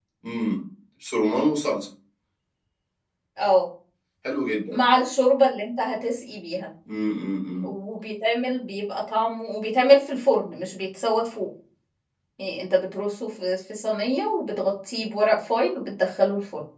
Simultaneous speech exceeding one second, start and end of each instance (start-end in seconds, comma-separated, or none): none